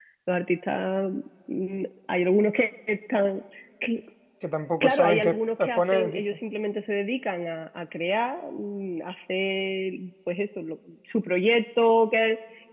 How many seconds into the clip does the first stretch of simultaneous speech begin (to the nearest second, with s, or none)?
5 s